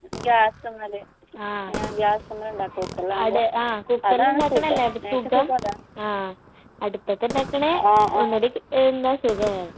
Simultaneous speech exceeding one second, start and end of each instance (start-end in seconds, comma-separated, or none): 4.1-5.5